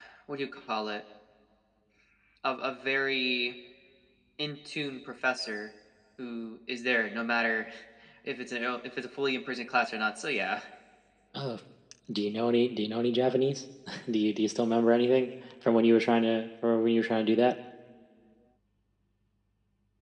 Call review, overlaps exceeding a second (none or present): none